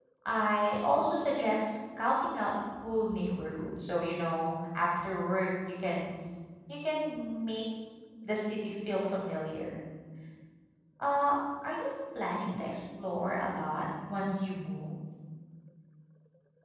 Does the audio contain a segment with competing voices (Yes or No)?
No